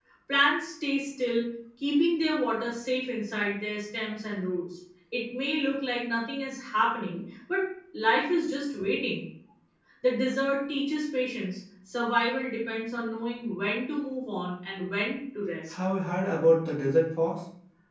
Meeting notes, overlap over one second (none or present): none